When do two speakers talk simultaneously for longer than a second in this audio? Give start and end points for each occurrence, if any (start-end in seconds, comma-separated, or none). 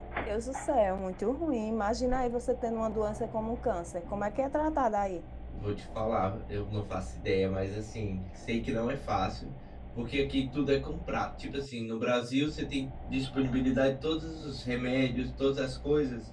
none